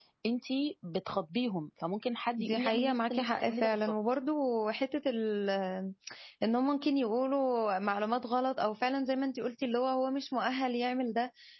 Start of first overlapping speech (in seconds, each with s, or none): 2.4 s